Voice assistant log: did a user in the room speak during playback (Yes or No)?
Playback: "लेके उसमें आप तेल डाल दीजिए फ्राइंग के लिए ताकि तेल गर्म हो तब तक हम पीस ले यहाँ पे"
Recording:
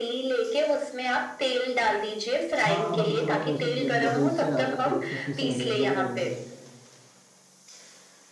Yes